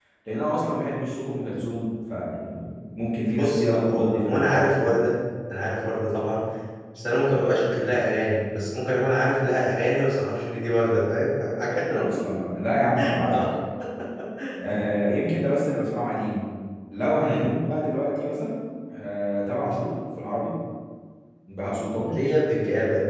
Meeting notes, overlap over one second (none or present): present